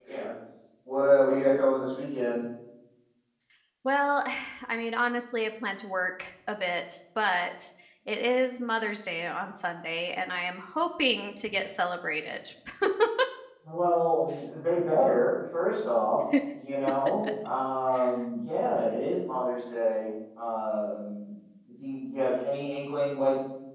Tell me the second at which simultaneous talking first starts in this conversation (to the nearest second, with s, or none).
none